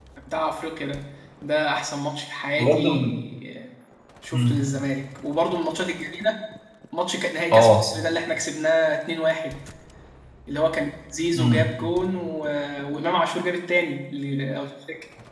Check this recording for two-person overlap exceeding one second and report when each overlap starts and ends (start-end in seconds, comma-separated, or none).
none